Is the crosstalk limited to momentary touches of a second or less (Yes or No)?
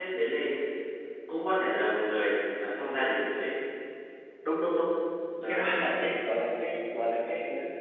Yes